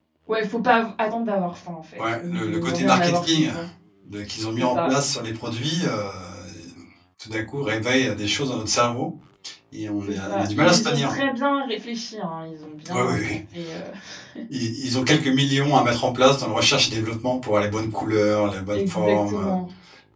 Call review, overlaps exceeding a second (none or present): present